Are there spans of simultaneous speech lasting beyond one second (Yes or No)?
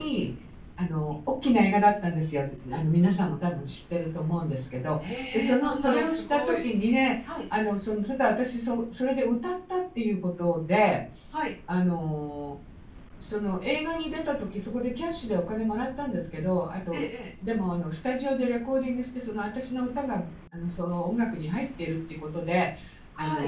Yes